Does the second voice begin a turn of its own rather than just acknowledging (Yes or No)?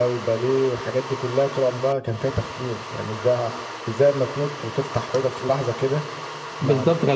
Yes